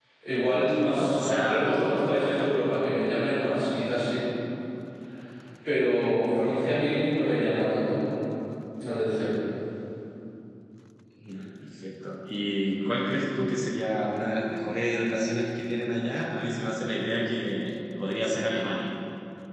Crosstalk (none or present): present